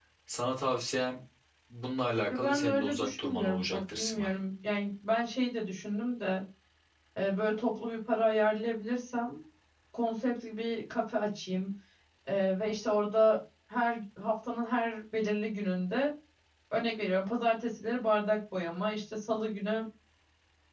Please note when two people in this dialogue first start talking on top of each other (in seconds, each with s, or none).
2.3 s